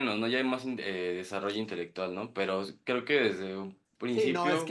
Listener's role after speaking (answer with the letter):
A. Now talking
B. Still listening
A